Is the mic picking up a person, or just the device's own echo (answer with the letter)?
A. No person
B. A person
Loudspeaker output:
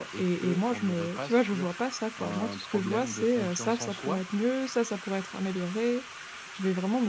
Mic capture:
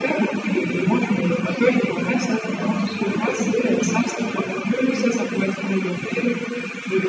A